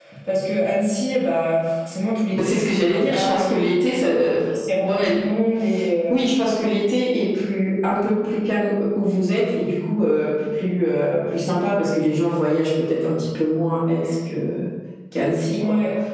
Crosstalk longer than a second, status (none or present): present